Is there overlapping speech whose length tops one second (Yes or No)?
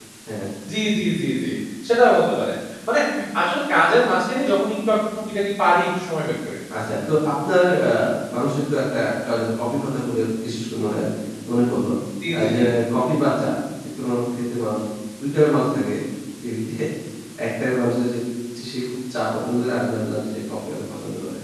No